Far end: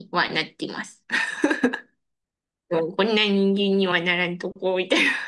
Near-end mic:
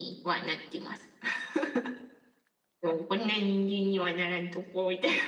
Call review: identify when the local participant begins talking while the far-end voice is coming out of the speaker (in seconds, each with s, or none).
none